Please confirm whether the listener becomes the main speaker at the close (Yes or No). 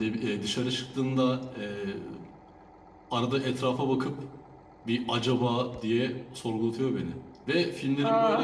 No